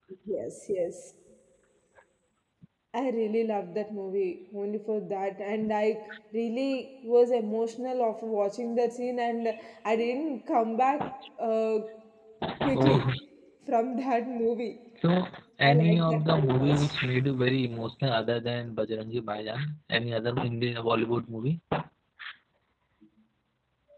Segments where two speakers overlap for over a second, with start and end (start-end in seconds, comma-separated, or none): 15.7-16.9